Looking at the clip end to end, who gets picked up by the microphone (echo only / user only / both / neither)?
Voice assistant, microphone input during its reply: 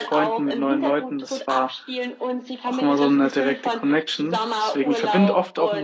both